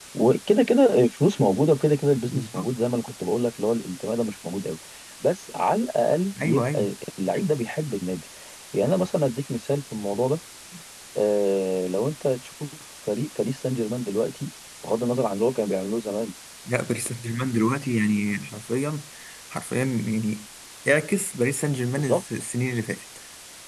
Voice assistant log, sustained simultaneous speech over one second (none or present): none